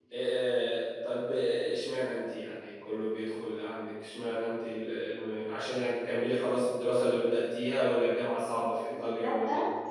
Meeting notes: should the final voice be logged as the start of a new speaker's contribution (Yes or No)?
Yes